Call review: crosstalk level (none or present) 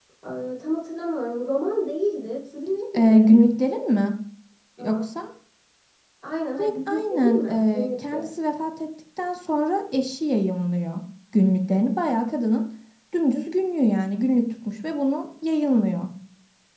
present